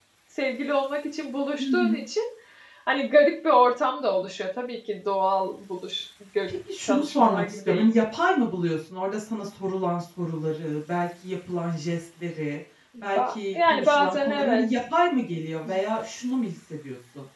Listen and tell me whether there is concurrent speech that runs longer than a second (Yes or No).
Yes